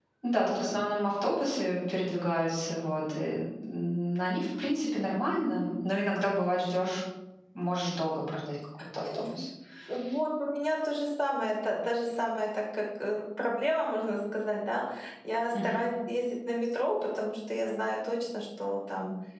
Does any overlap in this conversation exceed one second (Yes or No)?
No